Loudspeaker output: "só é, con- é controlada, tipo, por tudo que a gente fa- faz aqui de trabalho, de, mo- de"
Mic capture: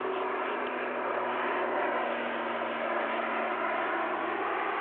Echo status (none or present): none